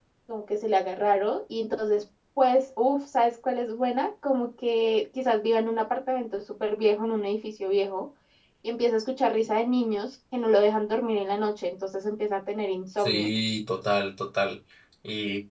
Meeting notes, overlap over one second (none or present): none